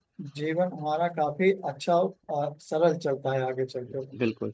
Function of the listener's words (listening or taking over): taking over